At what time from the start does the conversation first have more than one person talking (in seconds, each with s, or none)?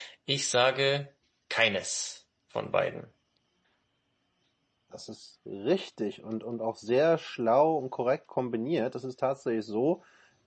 none